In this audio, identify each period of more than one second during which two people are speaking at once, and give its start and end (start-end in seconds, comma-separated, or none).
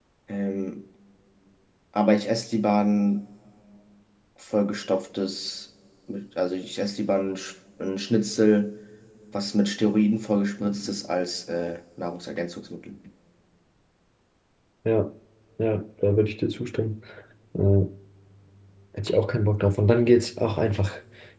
none